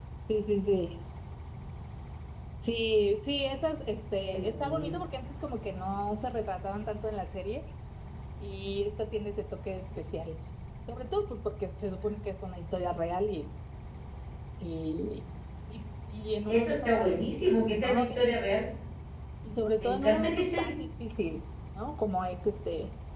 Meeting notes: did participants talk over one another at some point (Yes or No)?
Yes